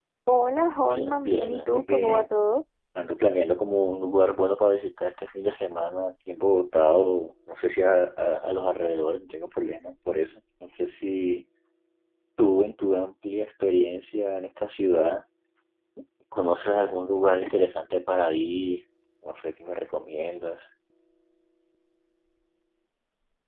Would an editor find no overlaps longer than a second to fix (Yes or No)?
No